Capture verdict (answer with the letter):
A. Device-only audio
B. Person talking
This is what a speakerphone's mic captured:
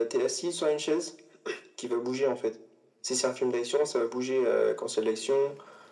A